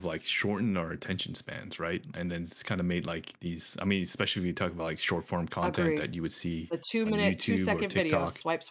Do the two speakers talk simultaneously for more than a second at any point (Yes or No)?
Yes